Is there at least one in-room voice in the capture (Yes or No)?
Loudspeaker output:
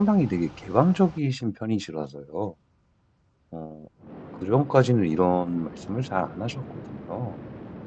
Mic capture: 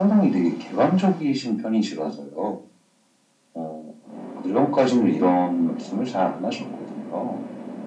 No